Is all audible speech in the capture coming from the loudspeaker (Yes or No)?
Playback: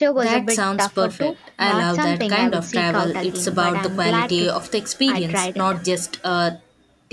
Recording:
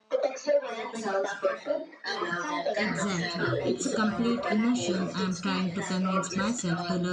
No